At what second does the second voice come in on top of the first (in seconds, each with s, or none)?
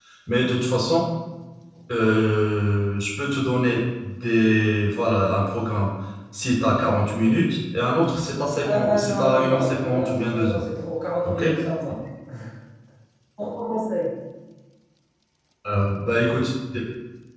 8.6 s